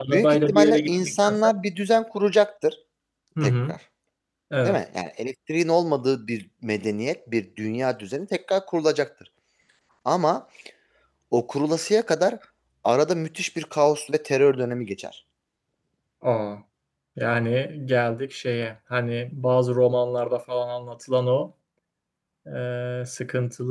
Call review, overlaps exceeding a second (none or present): present